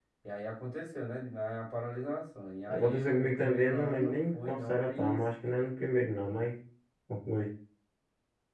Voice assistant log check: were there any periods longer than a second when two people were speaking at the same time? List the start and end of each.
2.7-5.2

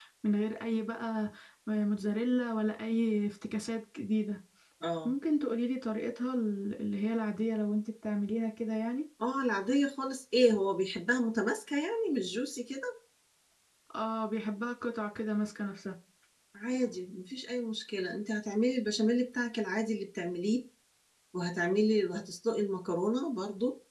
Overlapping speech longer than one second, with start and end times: none

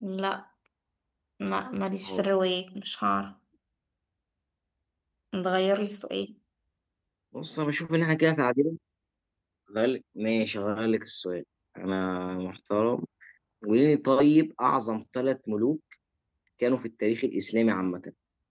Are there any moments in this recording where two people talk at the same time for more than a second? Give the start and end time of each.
none

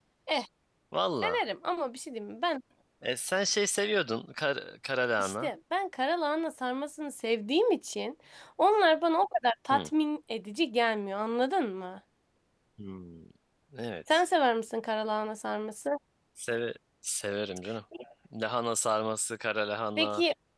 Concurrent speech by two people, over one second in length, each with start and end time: none

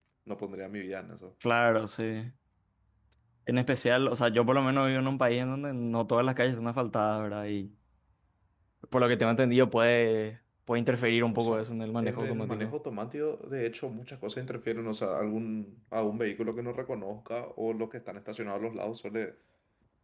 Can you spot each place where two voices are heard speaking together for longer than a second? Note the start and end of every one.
11.3-12.7

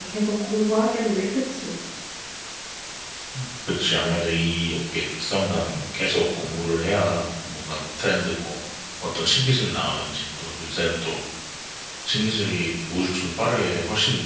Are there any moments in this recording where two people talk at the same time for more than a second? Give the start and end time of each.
none

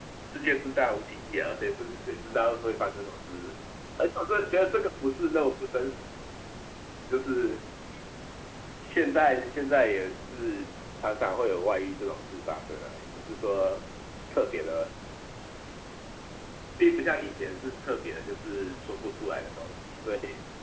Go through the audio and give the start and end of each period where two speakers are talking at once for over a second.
none

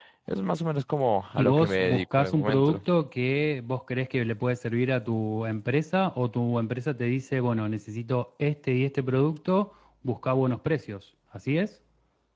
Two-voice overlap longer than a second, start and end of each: 1.4-2.8

